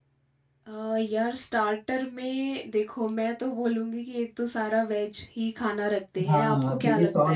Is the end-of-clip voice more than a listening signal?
Yes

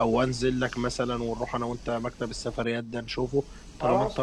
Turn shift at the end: Yes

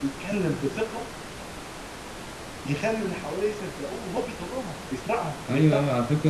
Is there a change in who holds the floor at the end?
Yes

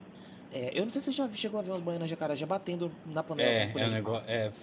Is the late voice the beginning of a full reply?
Yes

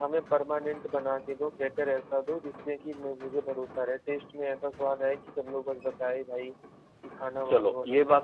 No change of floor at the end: No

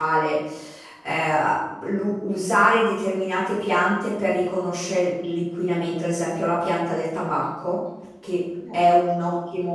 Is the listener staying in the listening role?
Yes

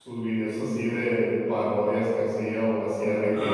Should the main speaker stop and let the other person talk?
No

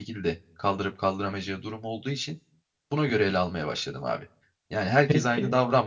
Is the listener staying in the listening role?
Yes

